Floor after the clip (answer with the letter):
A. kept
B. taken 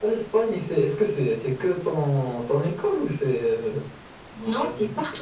B